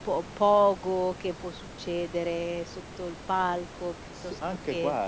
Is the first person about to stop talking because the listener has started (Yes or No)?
Yes